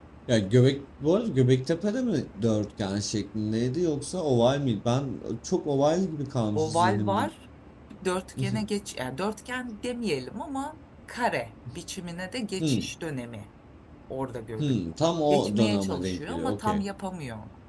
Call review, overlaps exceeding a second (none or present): present